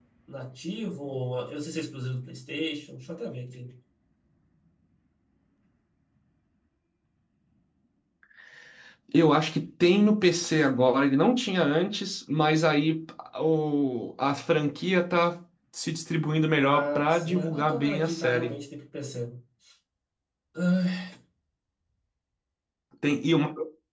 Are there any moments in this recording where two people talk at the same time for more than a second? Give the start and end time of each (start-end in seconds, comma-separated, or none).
16.6-18.6